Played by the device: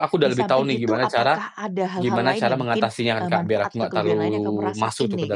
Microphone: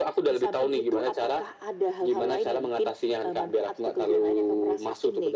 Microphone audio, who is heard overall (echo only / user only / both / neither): echo only